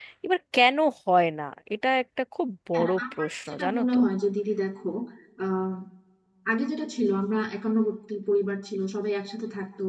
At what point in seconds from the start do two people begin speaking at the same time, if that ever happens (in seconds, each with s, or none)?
2.7 s